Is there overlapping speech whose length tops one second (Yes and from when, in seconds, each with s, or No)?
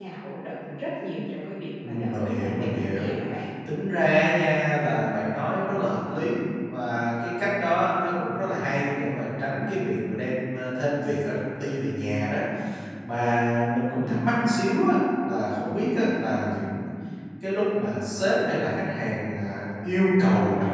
Yes, from 1.8 s